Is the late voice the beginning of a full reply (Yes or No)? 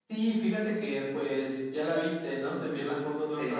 No